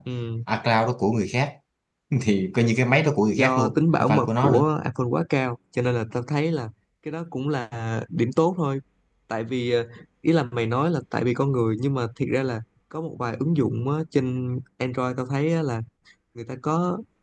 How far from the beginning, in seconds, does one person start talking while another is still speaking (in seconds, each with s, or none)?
3.4 s